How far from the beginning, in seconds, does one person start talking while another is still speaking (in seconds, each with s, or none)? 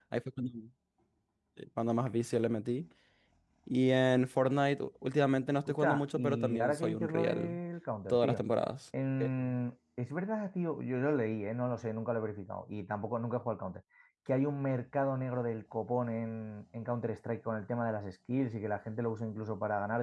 5.7 s